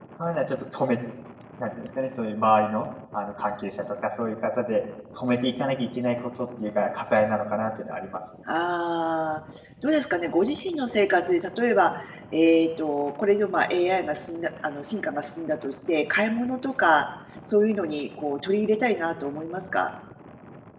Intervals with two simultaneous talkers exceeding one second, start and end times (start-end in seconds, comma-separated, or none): none